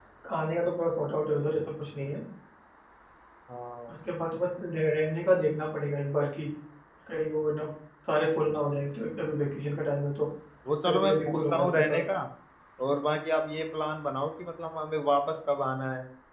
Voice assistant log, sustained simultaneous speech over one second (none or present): present